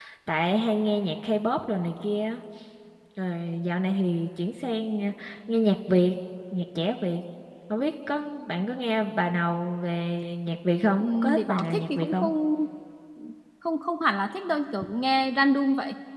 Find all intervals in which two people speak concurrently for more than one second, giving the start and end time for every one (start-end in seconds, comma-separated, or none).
11.0-12.3